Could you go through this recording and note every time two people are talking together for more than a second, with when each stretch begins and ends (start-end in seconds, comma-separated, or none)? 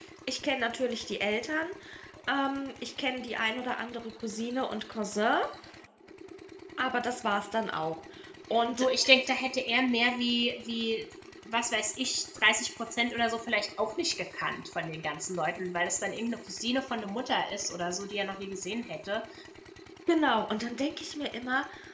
none